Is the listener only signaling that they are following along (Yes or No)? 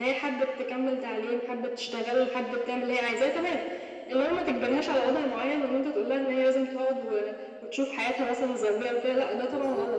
No